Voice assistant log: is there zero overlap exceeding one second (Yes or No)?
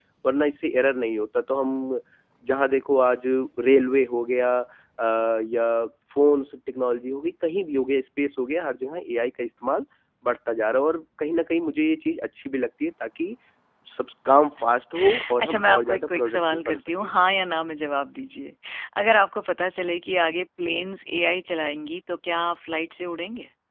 No